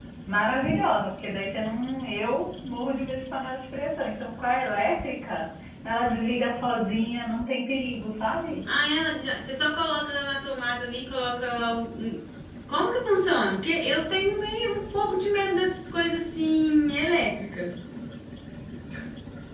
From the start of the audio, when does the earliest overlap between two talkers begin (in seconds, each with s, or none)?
none